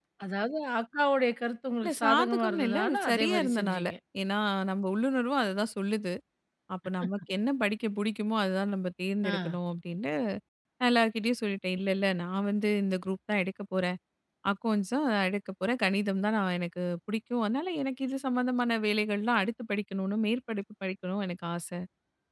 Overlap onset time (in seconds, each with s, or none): 1.8 s